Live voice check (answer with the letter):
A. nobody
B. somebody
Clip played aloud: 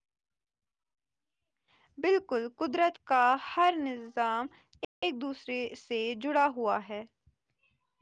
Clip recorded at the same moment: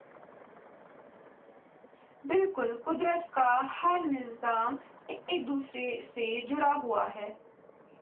A